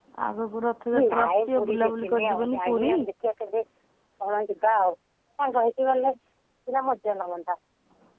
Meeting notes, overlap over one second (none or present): present